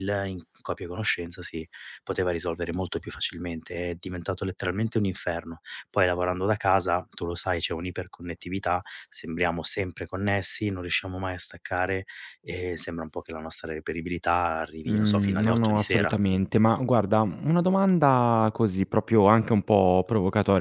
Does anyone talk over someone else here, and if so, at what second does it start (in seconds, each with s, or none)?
14.9 s